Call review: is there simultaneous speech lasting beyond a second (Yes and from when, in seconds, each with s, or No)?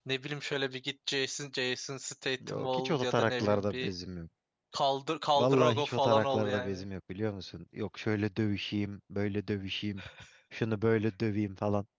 Yes, from 2.5 s